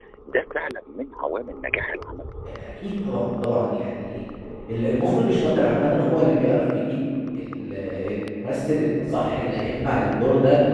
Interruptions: none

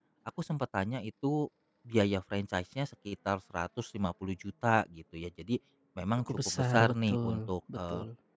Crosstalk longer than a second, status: present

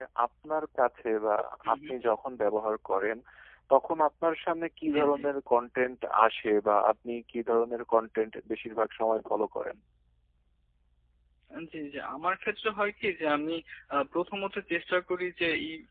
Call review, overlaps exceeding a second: none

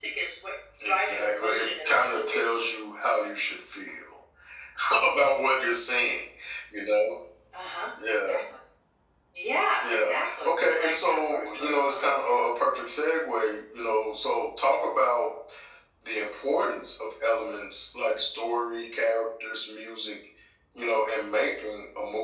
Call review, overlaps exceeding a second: present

